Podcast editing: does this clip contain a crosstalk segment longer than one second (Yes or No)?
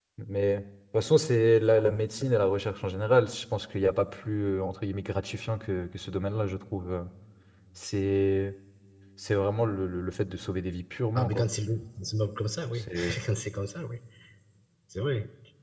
No